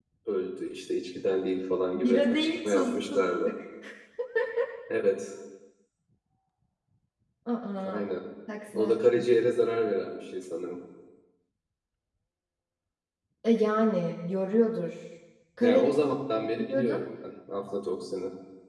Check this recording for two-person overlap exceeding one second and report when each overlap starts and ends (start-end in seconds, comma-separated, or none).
1.9-3.5